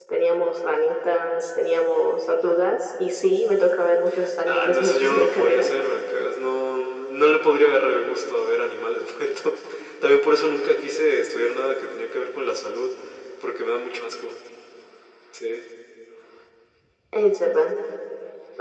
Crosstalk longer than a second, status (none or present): present